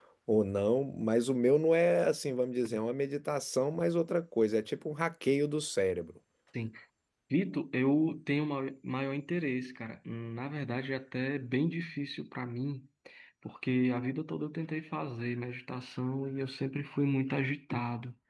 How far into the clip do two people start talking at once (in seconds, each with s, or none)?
none